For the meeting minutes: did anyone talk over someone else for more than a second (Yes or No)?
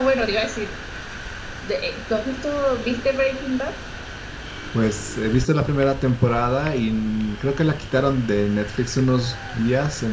No